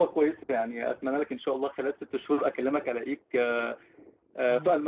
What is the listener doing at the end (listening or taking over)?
taking over